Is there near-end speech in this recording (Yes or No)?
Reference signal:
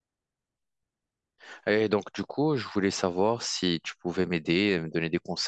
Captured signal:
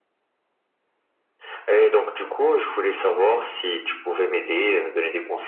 No